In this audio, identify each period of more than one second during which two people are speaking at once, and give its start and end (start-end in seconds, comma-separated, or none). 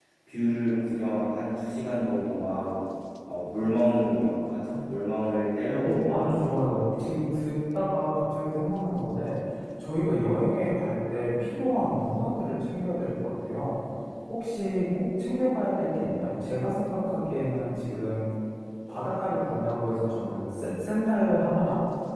5.8-7.1